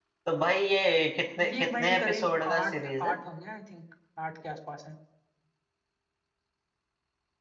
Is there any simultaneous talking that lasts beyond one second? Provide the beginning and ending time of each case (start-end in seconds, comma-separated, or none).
1.5-3.1